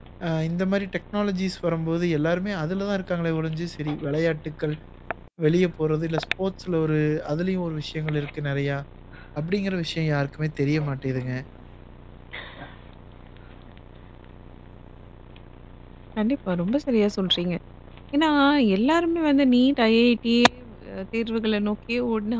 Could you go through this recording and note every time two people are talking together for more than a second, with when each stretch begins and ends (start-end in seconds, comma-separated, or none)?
none